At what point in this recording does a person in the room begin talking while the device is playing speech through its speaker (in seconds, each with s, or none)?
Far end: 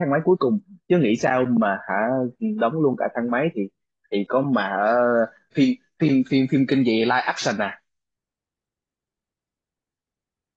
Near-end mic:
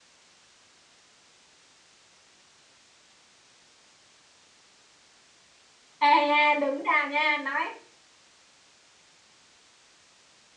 6.0 s